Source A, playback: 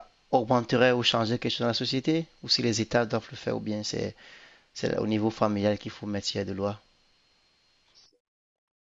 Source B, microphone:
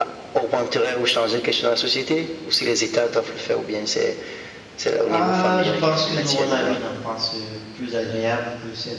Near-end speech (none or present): present